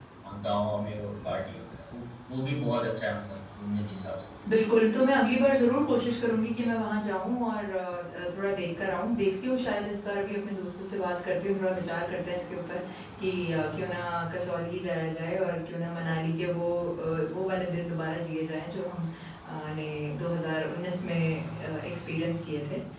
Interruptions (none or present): none